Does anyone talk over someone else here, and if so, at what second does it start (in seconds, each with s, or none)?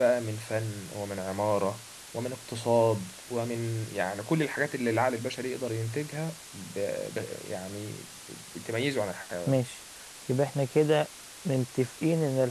none